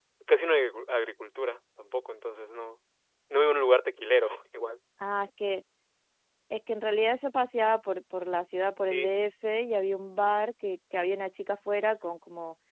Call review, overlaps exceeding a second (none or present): none